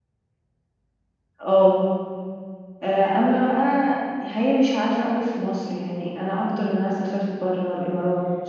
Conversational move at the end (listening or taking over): listening